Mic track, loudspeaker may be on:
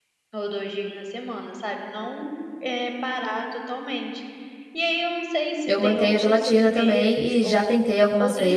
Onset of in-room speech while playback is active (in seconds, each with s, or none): 5.6 s